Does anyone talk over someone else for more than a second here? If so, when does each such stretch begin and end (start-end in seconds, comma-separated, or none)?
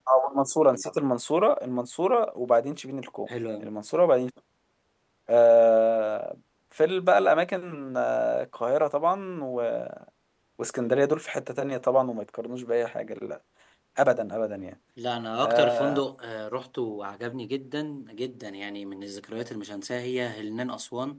none